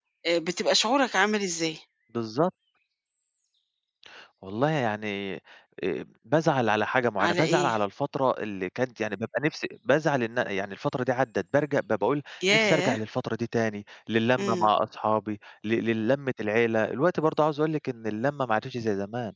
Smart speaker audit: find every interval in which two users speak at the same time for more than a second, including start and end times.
none

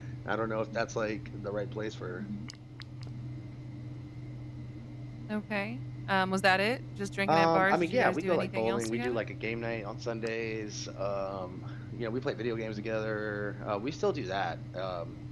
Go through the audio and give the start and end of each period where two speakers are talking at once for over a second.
7.3-9.2

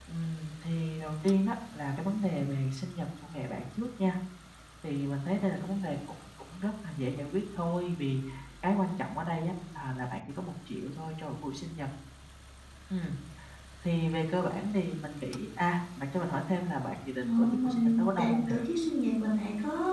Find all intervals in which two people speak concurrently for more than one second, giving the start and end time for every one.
17.2-18.5

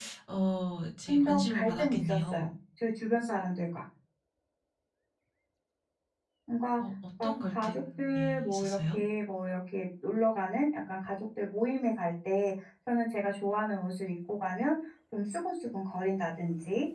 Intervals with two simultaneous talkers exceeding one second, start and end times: 1.1-2.5, 7.2-9.0

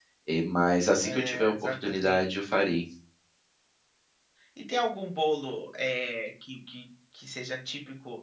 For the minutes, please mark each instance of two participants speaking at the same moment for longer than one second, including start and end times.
1.0-2.2

